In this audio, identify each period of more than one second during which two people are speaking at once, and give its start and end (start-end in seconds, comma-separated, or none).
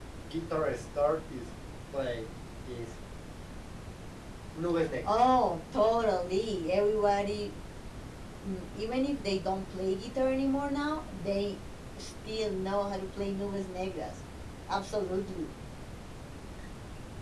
none